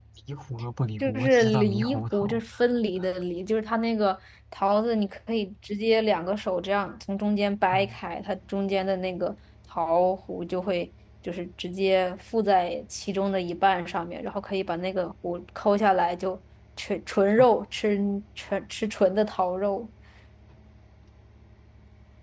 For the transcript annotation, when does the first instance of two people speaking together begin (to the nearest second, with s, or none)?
1 s